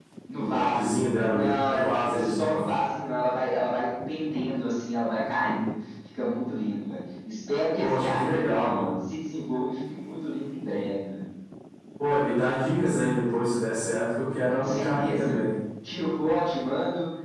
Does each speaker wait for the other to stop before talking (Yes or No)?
No